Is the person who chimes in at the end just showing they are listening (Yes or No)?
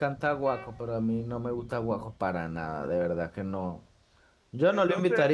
Yes